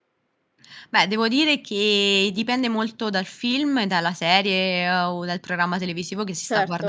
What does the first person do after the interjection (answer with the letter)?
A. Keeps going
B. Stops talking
A